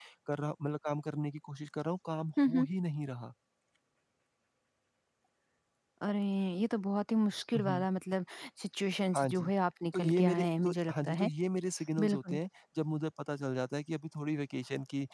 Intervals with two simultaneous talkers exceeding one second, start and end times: 9.9-11.3

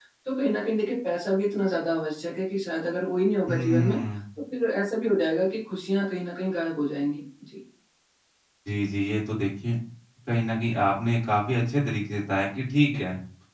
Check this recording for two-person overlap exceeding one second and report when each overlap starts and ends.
none

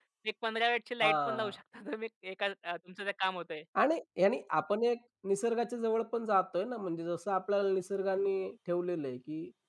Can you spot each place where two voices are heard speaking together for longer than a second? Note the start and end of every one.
none

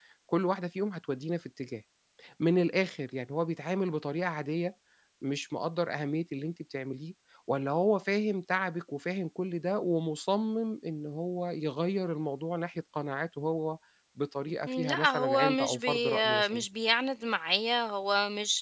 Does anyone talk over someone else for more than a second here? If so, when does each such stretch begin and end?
14.7-16.6

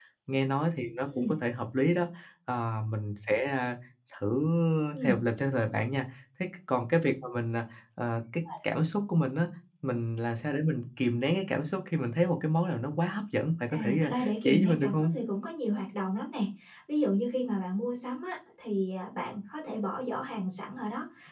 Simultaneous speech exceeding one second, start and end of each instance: 13.7-15.1

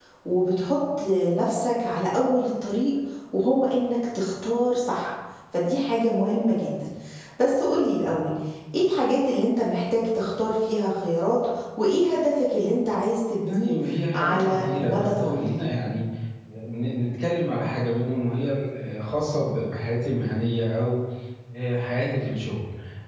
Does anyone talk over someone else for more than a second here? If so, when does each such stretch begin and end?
14.1-15.5

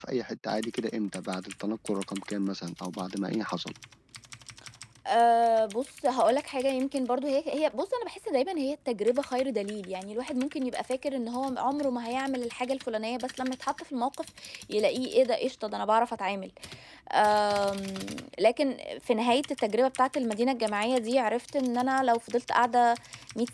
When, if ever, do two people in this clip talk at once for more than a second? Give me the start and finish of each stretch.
none

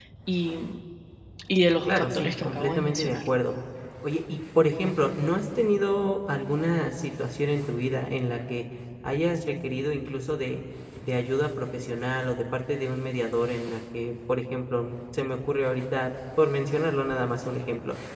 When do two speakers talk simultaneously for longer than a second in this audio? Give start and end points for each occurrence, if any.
1.9-3.2

